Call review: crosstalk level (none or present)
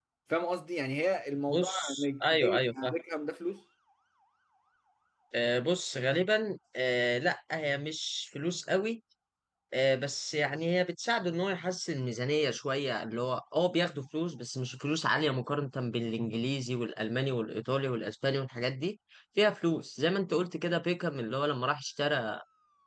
present